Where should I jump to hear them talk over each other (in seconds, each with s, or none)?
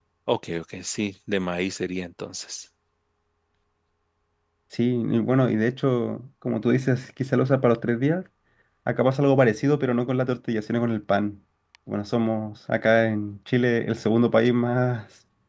none